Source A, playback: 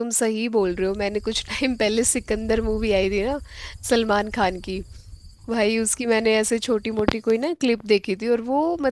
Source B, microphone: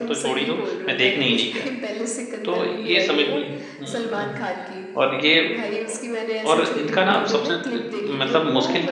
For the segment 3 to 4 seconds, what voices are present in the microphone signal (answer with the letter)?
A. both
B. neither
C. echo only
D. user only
A